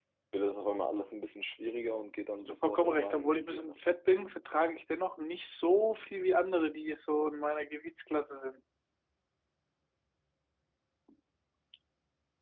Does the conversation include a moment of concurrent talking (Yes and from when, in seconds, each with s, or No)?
Yes, from 2.4 s